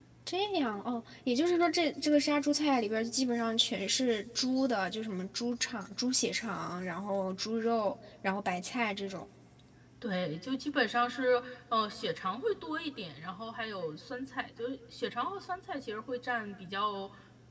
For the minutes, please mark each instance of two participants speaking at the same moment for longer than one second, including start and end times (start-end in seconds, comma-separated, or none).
none